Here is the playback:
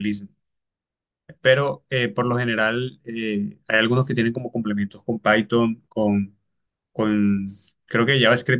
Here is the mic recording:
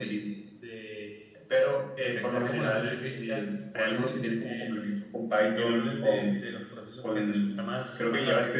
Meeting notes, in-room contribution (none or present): present